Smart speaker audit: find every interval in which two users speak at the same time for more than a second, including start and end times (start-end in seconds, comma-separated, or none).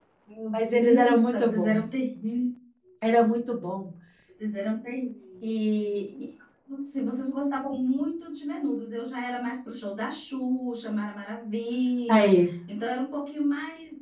0.5-1.8